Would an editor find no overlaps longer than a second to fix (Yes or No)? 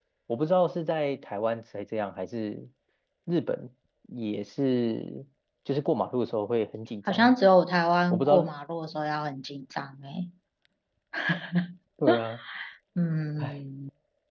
Yes